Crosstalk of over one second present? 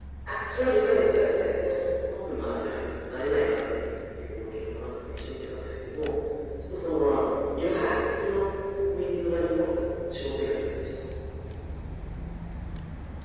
No

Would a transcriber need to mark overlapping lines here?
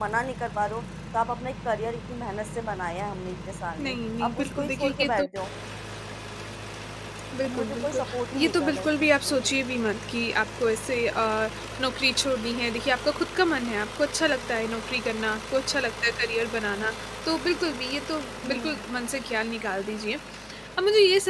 Yes, from 3.8 s

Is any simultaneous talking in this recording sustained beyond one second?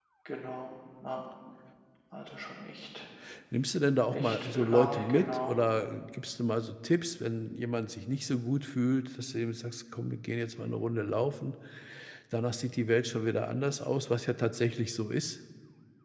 Yes, from 4.1 s

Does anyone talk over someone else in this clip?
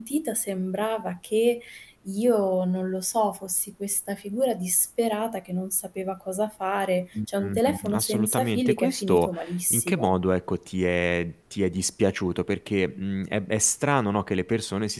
Yes, from 7.2 s

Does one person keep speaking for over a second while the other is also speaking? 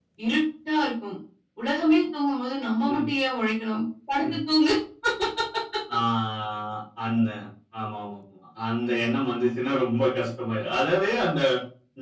No

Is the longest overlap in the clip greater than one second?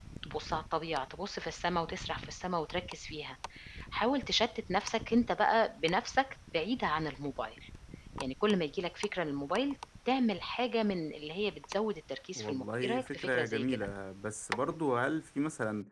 Yes, from 12.4 s

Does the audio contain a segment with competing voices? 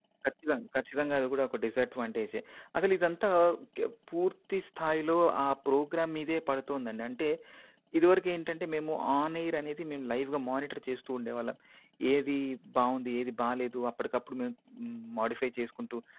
No

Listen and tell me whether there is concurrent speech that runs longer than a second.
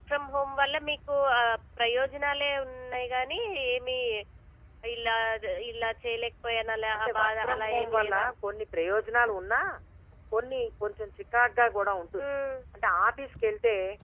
Yes, from 6.9 s

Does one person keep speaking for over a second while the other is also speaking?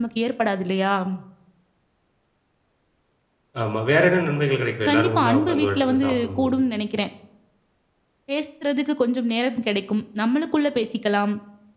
Yes, from 4.9 s

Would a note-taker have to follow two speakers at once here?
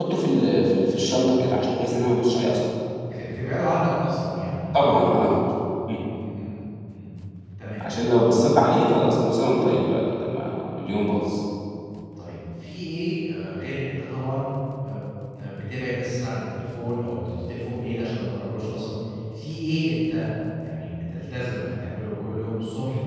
No

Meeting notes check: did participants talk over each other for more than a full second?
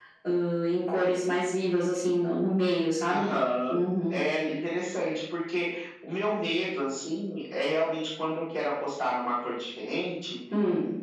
No

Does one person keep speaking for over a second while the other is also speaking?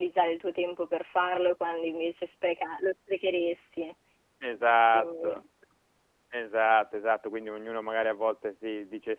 No

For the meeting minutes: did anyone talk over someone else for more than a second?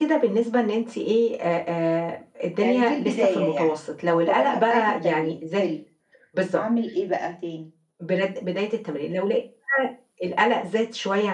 Yes, from 2.6 s

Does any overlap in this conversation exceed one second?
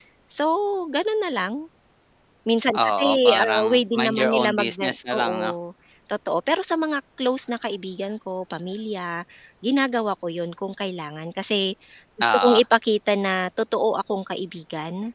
Yes, from 2.7 s

